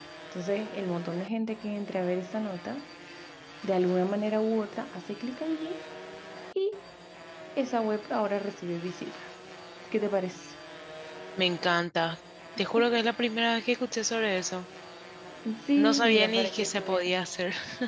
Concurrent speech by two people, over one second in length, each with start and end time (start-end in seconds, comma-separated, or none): 15.8-17.2